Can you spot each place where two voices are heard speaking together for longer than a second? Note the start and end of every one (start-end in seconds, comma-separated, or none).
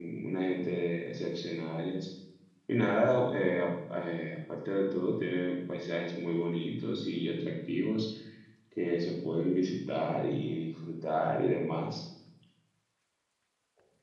none